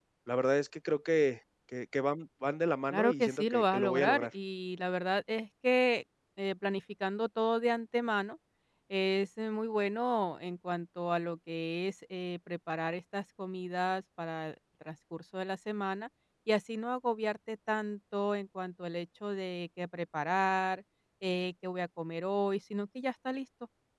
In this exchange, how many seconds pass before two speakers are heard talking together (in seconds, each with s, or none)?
2.9 s